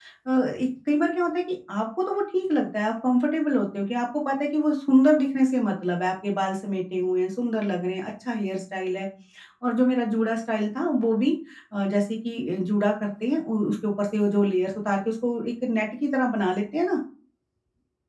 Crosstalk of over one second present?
No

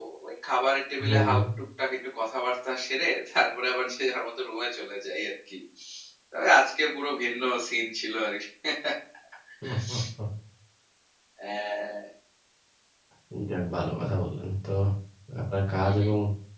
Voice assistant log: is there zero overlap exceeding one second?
Yes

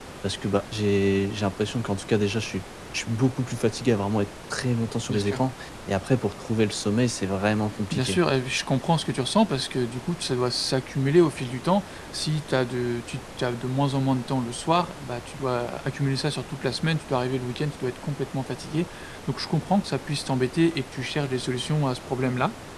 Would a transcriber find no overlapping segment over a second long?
Yes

